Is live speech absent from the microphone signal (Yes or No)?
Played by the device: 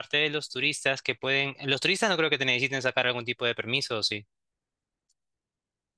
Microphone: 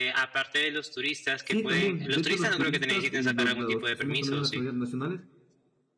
No